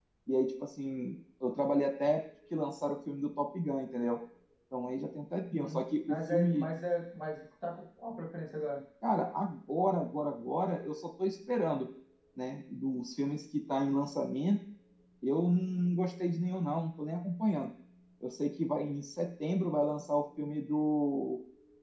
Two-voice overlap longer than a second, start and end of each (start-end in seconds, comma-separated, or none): 5.5-6.7